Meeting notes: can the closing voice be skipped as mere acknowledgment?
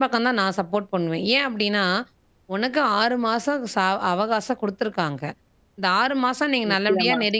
Yes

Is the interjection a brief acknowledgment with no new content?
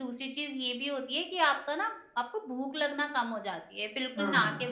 Yes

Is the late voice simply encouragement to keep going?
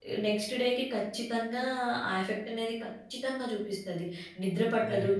Yes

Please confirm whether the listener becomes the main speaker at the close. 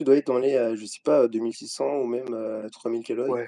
Yes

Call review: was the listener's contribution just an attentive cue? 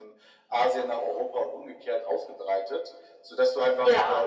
Yes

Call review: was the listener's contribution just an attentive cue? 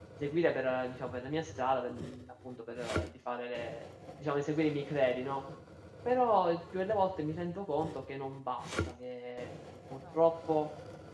Yes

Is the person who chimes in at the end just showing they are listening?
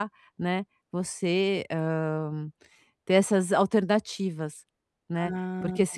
Yes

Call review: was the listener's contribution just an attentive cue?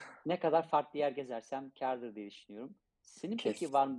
Yes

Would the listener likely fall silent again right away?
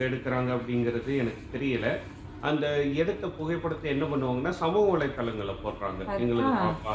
Yes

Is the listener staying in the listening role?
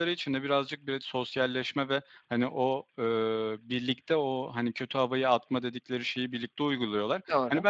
Yes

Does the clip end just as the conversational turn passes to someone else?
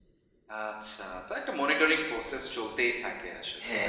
Yes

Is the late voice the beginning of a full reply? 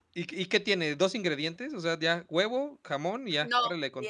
Yes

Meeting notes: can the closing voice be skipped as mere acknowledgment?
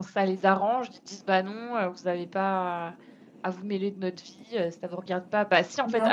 Yes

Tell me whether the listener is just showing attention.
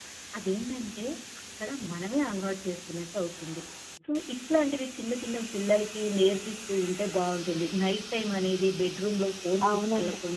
Yes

